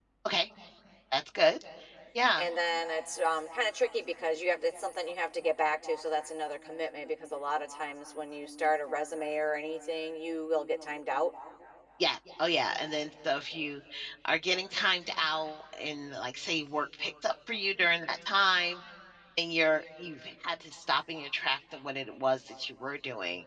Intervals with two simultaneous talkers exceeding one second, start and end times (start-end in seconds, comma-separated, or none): none